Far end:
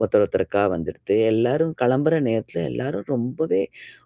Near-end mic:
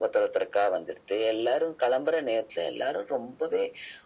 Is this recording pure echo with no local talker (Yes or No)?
Yes